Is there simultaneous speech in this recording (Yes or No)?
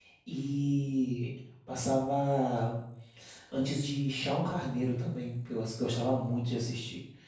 No